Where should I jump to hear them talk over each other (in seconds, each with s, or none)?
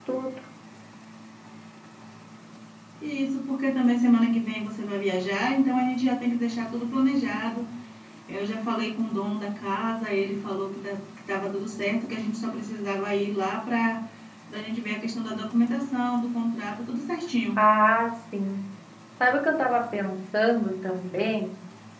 none